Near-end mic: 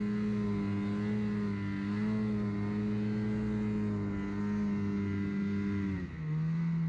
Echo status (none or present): none